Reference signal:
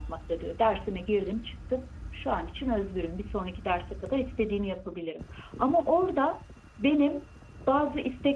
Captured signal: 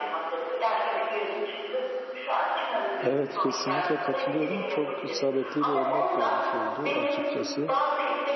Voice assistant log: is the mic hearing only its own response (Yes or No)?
No